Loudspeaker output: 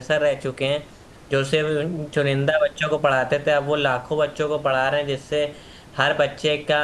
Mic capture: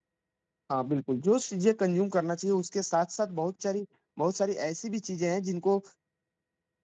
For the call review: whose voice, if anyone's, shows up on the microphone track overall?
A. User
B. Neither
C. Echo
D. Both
A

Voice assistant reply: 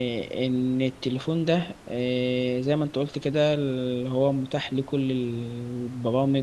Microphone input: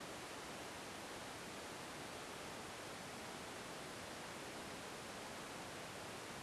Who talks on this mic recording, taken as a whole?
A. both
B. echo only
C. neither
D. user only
C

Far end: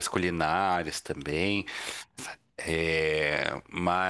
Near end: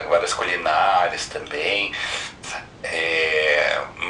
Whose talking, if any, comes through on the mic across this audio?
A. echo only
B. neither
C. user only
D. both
A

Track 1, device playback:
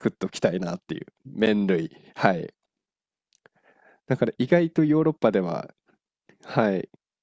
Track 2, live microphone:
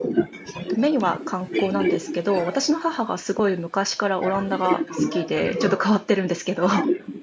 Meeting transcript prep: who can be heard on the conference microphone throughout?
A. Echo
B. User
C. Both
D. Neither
C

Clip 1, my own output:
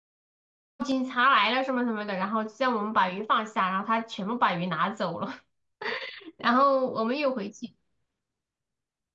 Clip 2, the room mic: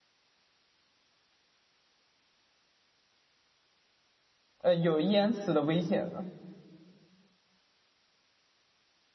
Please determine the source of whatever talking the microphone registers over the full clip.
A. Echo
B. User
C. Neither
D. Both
B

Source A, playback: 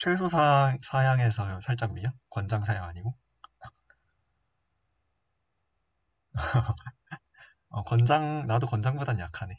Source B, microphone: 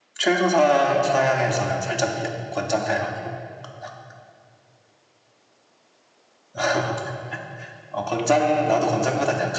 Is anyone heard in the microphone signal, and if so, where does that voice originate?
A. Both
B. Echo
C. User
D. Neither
B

